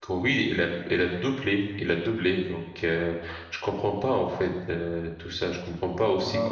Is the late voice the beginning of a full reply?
No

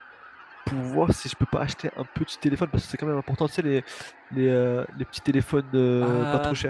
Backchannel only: No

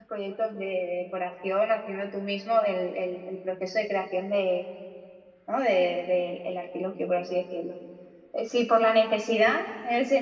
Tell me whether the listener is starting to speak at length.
No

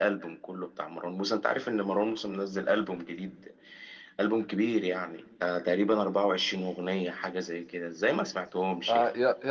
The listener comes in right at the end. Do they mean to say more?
Yes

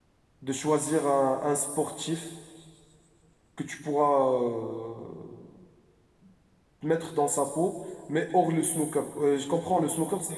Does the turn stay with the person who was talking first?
Yes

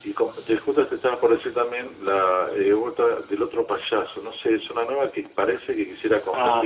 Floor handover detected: Yes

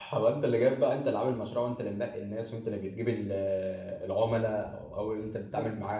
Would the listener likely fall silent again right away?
Yes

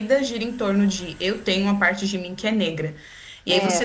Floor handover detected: No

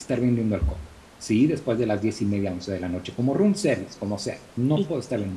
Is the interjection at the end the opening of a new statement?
Yes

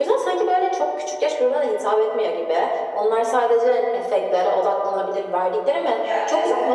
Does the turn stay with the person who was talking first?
Yes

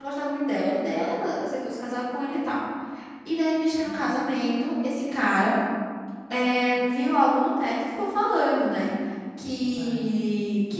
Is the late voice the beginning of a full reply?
No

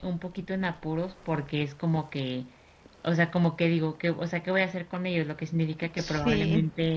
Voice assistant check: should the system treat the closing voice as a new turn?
No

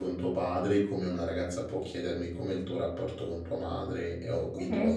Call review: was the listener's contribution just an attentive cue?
No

